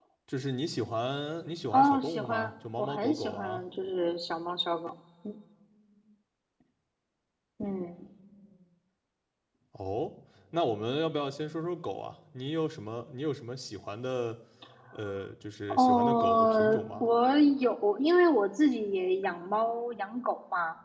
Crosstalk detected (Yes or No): Yes